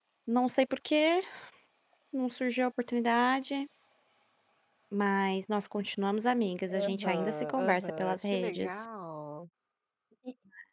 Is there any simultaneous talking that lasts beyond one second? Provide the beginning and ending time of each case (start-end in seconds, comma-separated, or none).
6.7-8.8